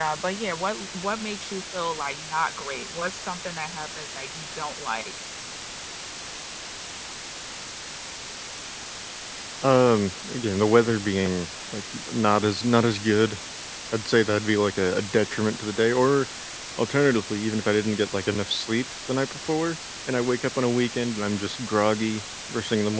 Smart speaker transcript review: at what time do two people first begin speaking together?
none

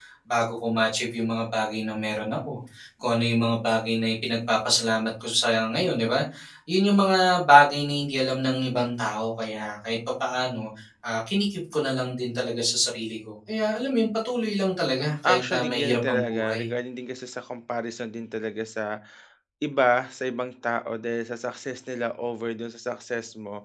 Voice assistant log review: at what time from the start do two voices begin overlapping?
15.2 s

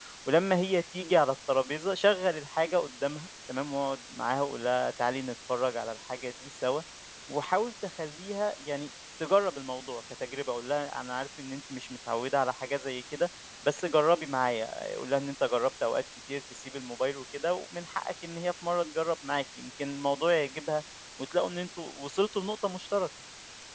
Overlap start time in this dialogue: none

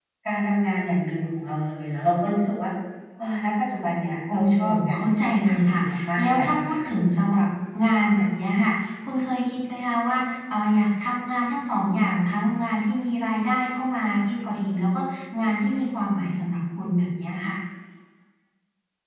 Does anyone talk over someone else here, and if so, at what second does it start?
4.3 s

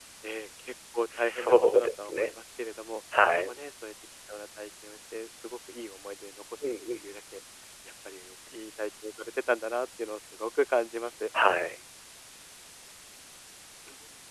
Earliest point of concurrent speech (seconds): 1.2 s

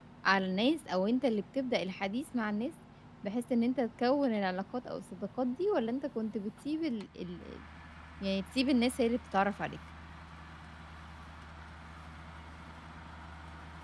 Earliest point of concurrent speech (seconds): none

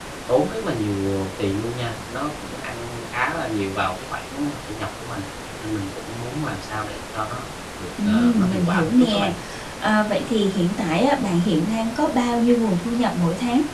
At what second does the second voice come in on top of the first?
8.0 s

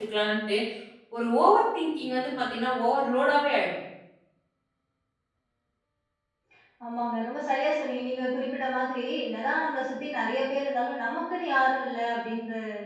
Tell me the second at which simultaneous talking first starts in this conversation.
none

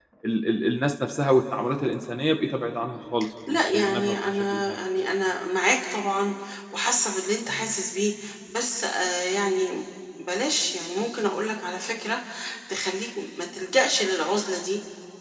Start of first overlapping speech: 3.5 s

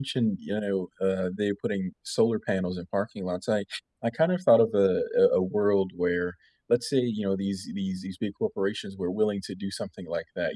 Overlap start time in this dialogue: none

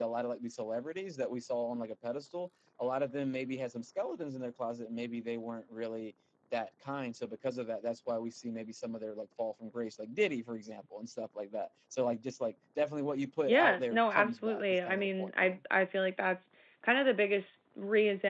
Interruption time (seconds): 13.5 s

